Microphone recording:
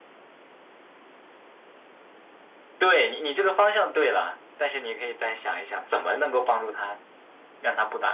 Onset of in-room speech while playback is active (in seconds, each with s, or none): none